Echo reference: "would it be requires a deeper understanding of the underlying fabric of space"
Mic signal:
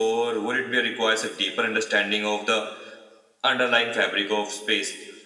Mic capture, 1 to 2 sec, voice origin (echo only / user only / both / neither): echo only